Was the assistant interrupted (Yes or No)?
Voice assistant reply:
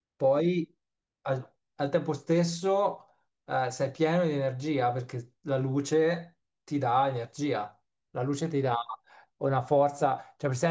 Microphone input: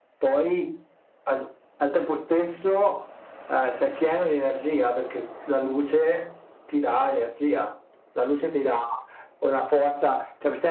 No